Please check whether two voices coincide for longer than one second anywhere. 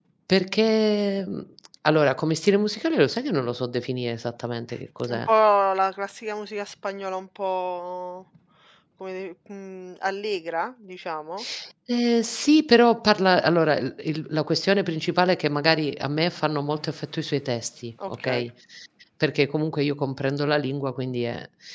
No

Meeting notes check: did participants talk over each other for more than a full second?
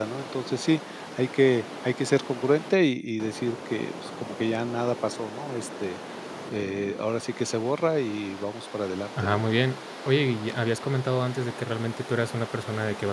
No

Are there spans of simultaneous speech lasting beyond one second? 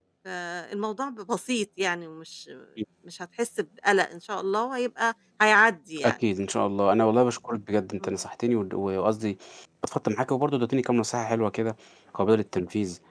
No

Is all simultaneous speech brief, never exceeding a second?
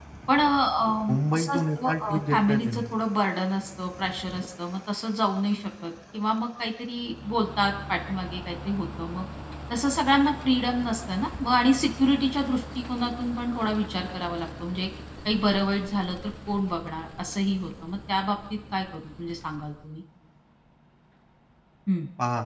No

